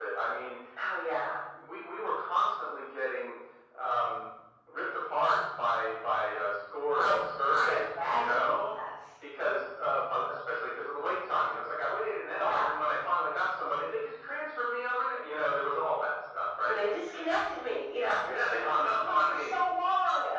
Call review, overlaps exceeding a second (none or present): present